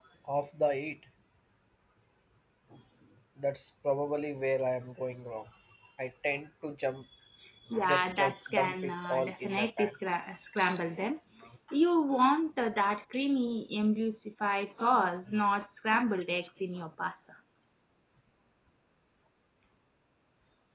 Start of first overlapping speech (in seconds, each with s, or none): 7.9 s